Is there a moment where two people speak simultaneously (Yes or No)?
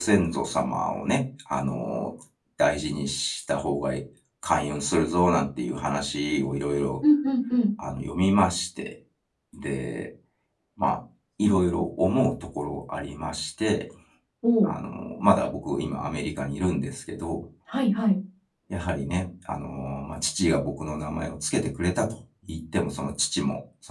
No